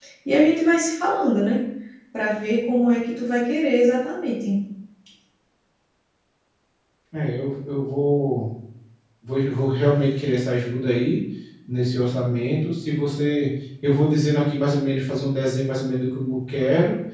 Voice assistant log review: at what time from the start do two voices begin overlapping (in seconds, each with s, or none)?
none